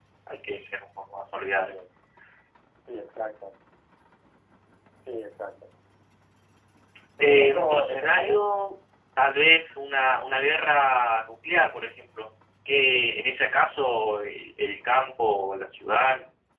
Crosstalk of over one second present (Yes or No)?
Yes